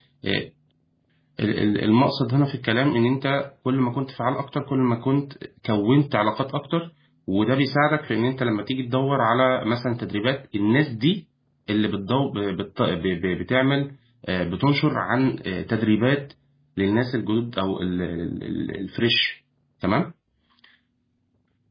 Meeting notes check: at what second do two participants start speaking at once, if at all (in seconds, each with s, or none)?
none